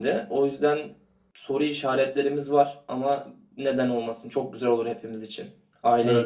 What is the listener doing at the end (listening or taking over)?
taking over